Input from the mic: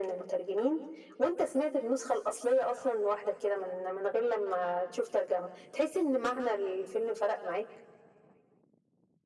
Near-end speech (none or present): none